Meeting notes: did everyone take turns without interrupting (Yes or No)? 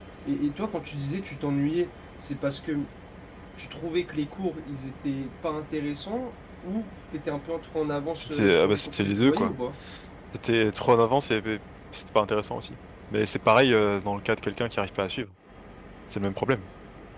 No